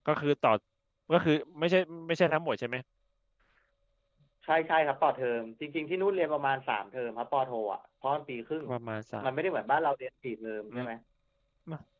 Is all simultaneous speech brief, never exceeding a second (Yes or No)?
Yes